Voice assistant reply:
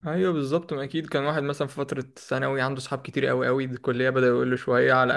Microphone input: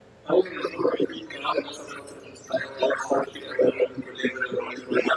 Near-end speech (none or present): none